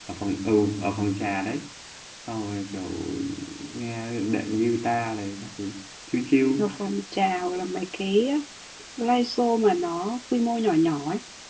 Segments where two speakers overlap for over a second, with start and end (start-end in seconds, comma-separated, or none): none